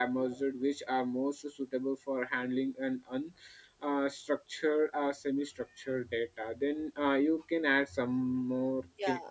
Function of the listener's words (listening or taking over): taking over